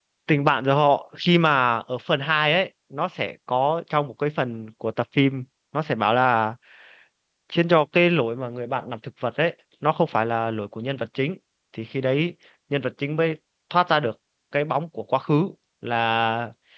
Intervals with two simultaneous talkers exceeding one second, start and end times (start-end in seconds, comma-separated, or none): none